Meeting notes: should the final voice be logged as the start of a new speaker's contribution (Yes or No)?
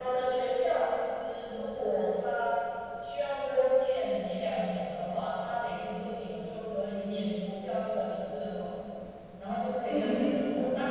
No